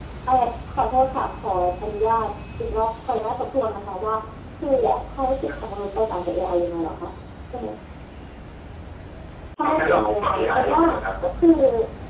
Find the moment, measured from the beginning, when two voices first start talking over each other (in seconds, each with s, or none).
9.6 s